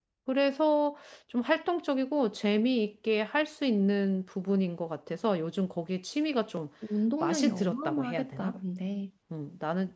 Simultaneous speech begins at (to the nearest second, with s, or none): 7 s